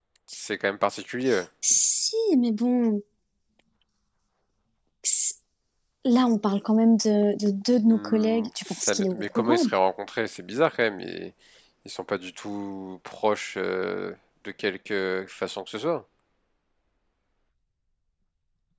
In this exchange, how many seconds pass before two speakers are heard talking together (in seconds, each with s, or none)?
7.8 s